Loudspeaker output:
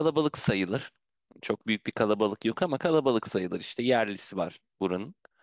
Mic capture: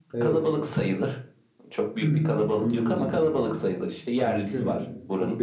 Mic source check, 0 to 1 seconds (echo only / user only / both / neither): both